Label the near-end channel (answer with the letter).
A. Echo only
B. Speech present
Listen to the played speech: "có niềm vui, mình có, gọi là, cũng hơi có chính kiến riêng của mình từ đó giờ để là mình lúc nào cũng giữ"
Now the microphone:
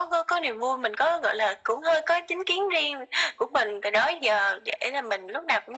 A